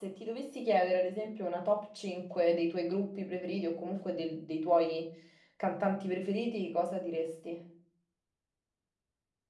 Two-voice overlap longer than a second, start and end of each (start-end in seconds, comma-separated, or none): none